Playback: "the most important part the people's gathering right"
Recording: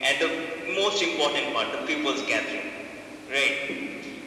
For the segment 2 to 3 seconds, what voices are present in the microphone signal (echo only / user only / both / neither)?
echo only